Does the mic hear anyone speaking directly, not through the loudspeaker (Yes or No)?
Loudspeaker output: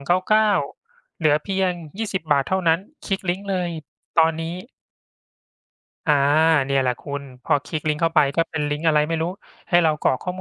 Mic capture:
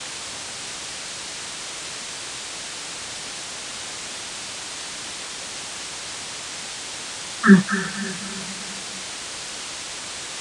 Yes